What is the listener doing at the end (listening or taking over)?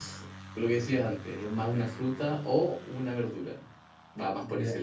taking over